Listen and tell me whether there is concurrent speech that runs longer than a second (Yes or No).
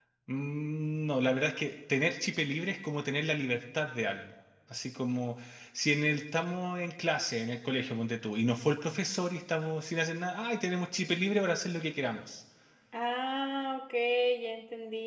No